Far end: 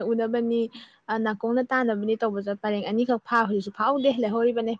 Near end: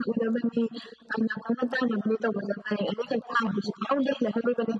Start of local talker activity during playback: none

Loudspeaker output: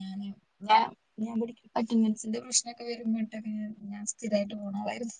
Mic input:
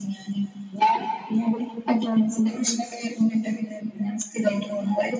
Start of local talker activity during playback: none

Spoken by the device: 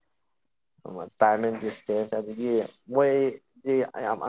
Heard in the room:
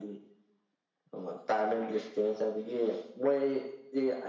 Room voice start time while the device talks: none

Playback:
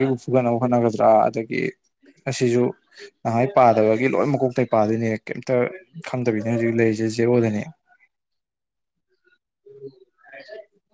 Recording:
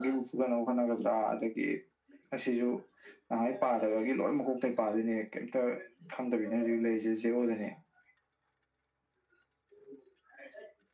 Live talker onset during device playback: none

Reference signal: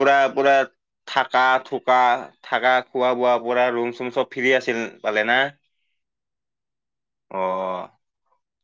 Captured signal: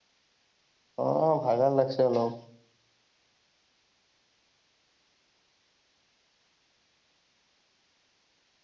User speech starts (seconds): 1.0 s

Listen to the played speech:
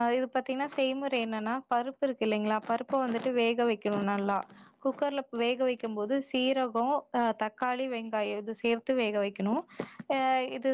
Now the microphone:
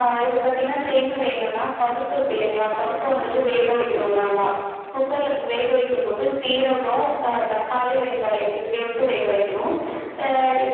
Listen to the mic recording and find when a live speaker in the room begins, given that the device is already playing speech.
none

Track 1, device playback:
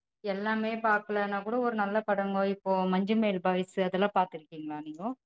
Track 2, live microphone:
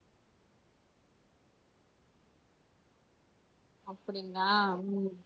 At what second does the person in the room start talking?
3.9 s

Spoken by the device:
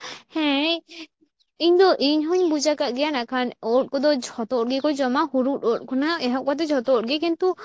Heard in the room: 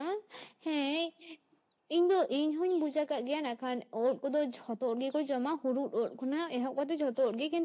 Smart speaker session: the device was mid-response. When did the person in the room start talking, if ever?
none

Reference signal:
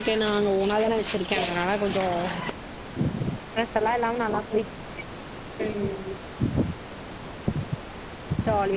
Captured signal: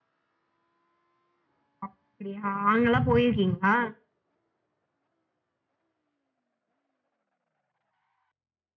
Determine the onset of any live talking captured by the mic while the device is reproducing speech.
1.9 s

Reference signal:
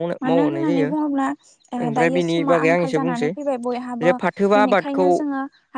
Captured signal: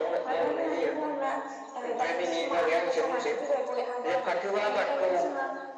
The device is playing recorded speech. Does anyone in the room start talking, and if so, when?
none

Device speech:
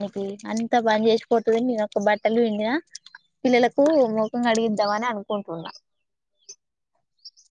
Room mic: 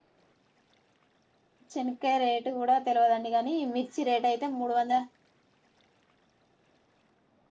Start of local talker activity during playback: 1.7 s

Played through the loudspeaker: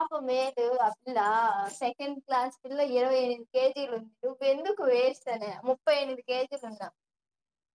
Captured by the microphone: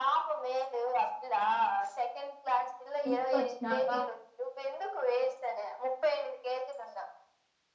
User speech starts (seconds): 3.1 s

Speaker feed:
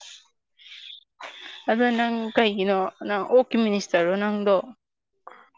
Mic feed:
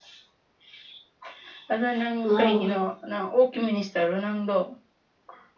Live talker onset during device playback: 2.2 s

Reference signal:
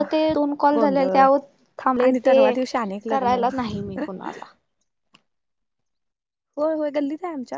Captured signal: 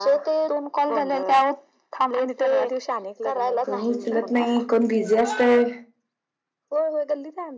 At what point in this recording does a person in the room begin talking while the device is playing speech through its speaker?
3.6 s

